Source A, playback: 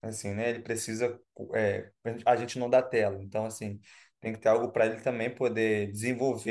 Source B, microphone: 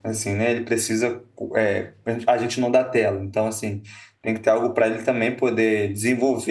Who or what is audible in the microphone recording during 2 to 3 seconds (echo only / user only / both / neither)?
echo only